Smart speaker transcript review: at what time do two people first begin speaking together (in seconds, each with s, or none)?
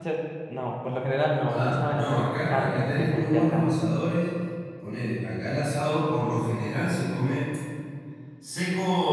1.5 s